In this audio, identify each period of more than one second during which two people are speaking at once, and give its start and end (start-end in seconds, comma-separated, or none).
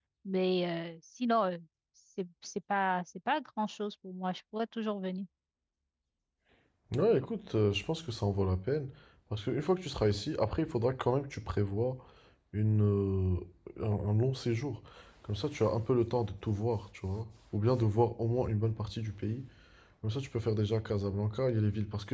none